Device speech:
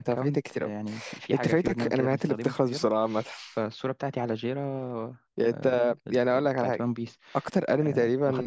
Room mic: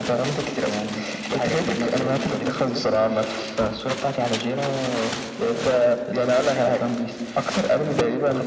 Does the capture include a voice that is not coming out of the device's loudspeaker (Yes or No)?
No